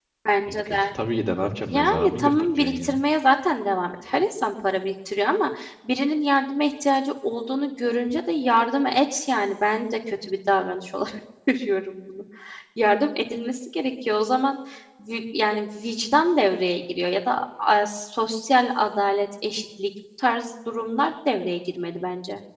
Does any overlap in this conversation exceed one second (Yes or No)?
Yes